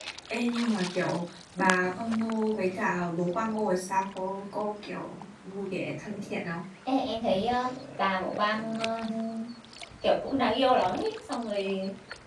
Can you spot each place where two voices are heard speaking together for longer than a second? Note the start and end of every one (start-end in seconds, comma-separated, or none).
none